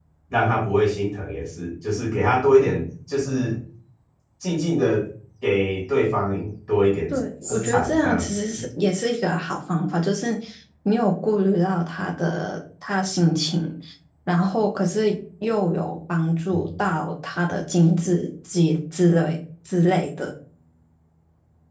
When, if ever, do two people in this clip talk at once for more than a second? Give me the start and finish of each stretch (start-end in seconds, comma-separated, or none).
7.1-8.5